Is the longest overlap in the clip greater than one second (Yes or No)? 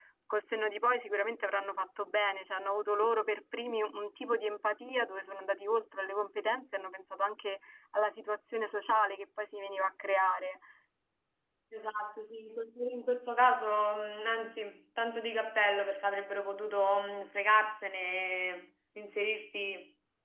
No